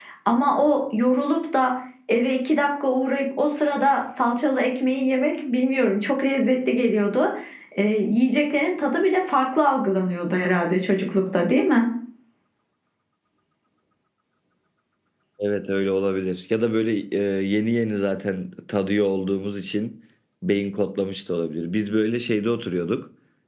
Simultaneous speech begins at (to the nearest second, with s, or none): none